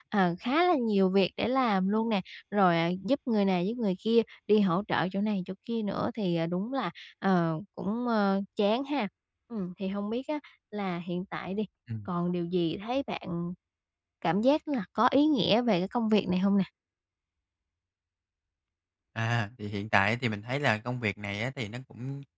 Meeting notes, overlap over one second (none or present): none